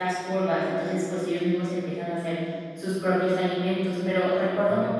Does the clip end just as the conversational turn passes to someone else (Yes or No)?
No